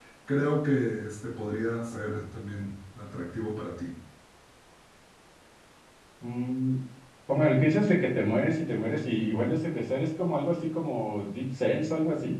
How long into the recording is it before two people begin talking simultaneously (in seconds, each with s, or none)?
none